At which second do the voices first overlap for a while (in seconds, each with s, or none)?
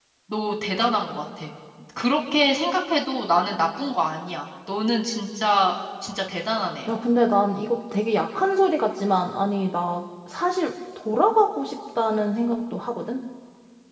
none